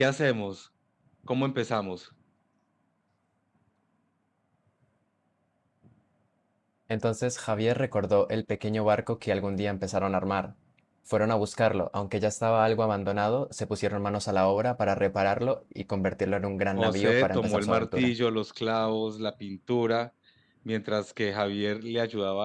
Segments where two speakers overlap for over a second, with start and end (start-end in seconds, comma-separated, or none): 16.7-18.1